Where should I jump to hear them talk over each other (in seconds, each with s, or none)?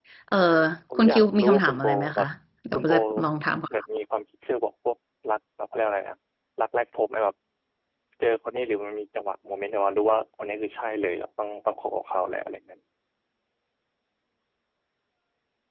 0.9 s